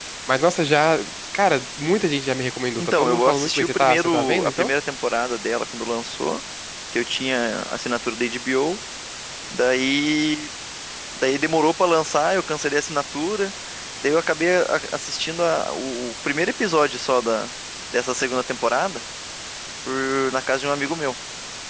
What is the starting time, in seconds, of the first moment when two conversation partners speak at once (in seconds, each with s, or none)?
2.8 s